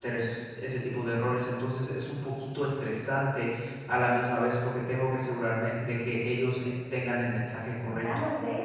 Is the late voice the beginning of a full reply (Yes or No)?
Yes